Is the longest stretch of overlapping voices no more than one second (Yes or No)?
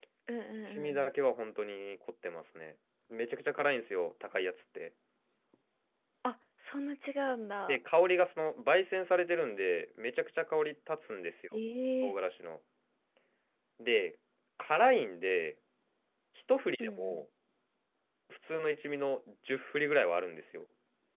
Yes